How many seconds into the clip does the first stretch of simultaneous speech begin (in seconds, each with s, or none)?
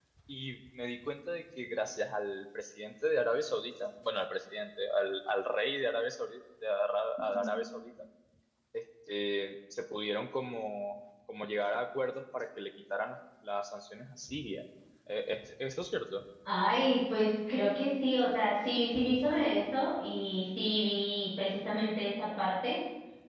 none